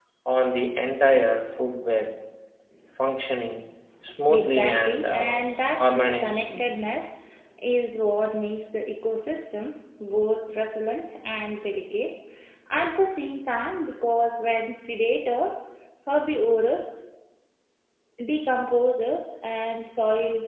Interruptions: present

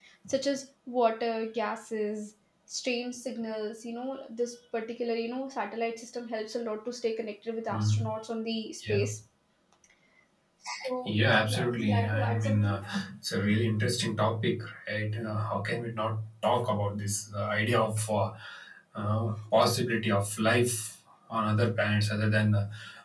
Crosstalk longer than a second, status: present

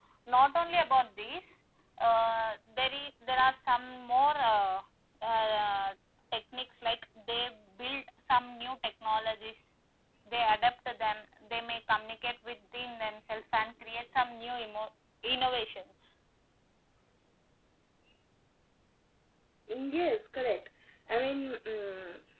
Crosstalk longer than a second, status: none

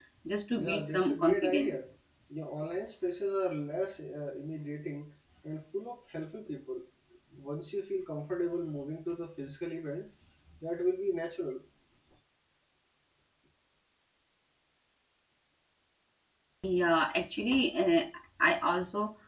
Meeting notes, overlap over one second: present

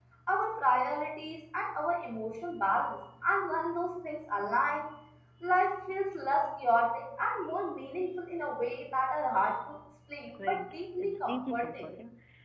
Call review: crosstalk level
present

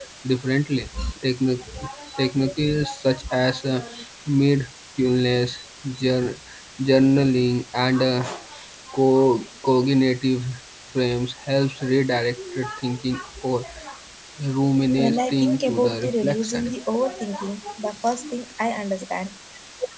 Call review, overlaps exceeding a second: present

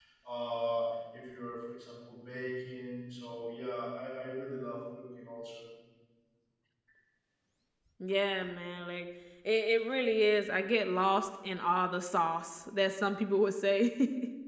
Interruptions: none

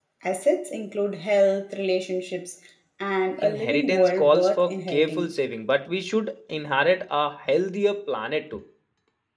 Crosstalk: present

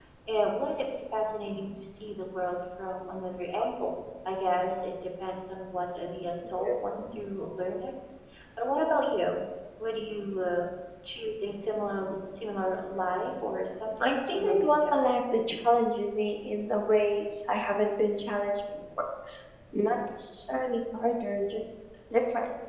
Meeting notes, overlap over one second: present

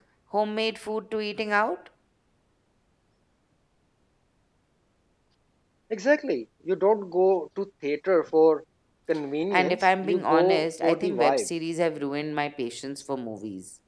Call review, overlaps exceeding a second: present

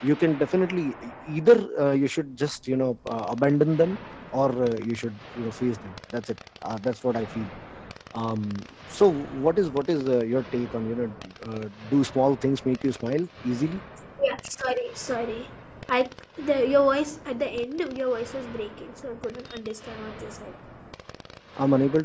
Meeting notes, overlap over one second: none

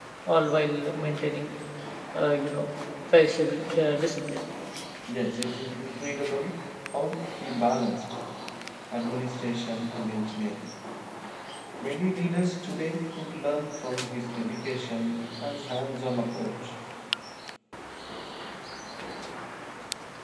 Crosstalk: none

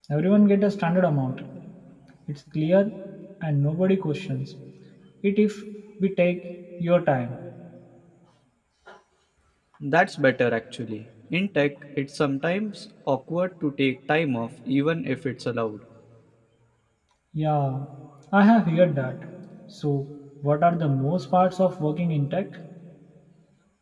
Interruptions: none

